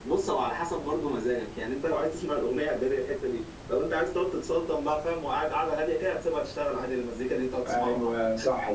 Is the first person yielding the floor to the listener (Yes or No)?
Yes